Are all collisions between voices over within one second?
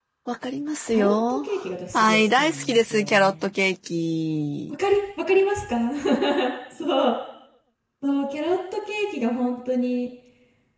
No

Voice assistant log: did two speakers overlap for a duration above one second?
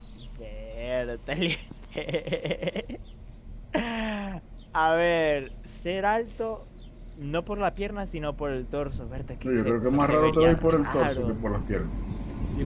Yes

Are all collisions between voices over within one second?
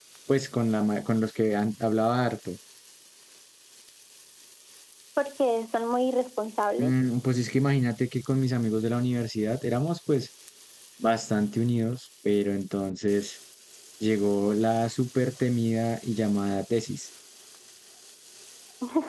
Yes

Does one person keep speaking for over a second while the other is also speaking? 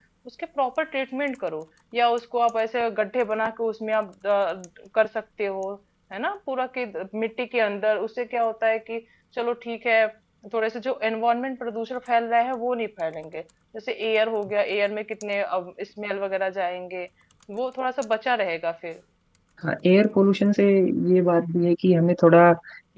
No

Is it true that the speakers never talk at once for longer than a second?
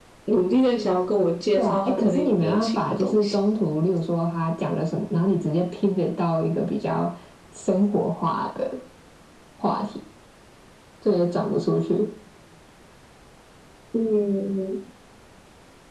No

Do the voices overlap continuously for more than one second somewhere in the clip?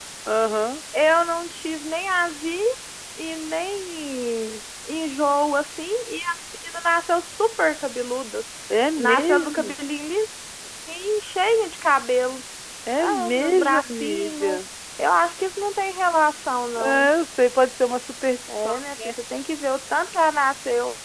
Yes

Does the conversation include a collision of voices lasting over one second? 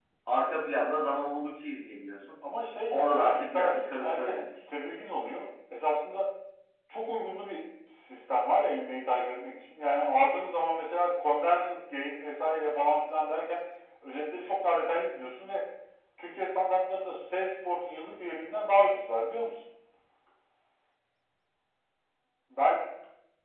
Yes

